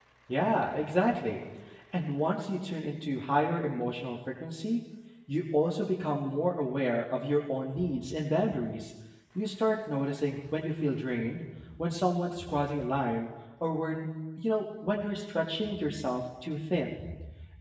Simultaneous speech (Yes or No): No